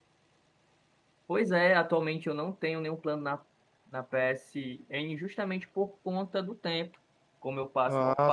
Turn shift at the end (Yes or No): No